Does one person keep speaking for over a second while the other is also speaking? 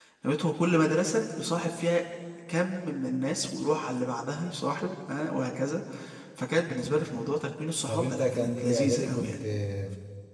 Yes, from 7.9 s

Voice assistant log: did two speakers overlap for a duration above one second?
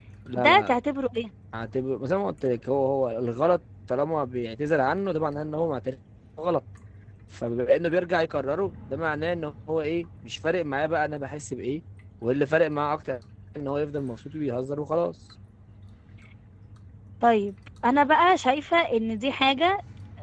No

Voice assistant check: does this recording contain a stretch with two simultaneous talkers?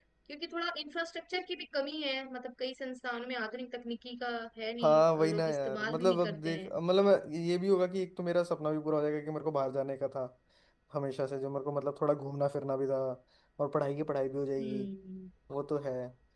Yes, from 4.8 s

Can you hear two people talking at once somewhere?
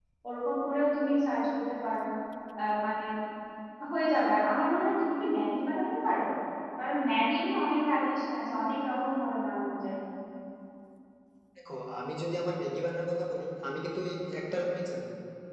No

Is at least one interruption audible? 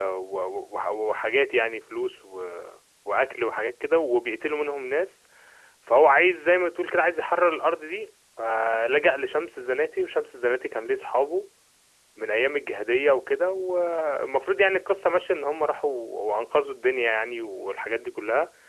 No

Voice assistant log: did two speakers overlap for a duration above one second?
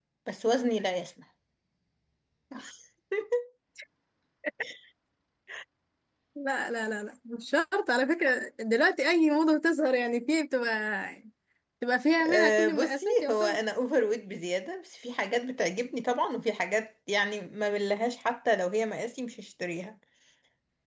Yes, from 12.2 s

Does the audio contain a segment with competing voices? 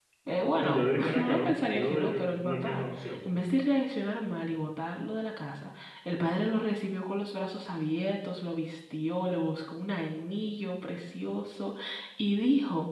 Yes, from 0.6 s

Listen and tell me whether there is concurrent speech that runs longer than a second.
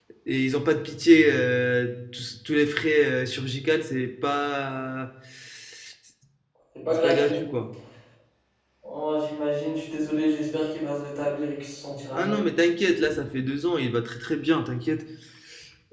No

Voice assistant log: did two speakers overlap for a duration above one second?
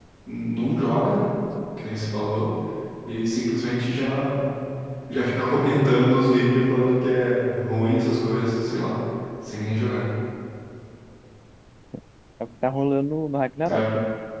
No

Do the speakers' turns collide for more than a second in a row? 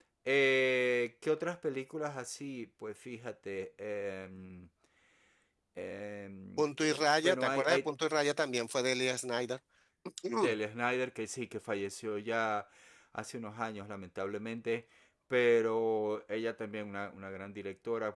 Yes, from 6.6 s

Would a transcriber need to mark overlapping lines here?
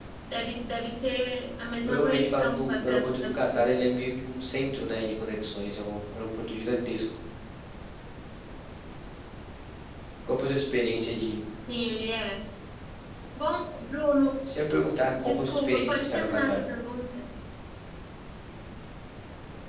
Yes, from 1.9 s

